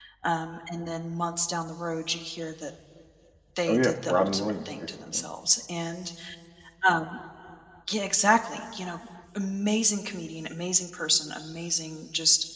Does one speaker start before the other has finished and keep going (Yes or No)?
Yes